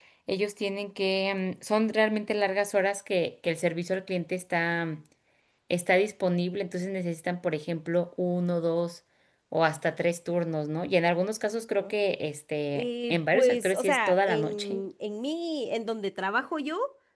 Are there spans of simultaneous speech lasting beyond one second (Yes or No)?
Yes